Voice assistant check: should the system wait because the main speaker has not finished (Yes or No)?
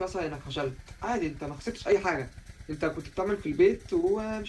Yes